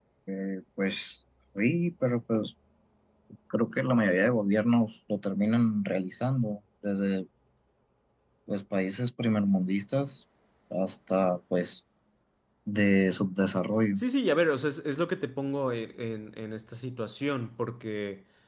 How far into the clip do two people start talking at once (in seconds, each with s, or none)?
none